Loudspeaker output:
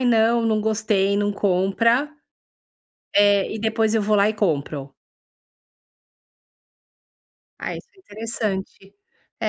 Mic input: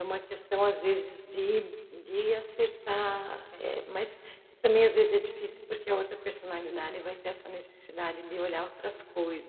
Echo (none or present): none